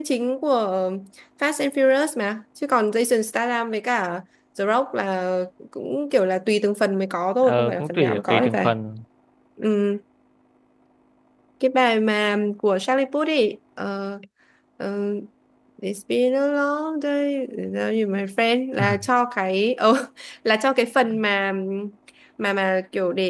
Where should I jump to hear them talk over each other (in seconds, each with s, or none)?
7.4 s